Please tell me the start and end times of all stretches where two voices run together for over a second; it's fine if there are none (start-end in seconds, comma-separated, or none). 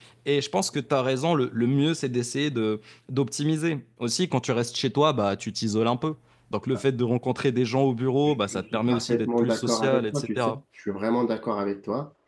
8.3-10.6